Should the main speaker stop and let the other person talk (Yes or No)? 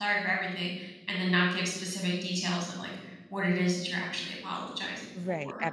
Yes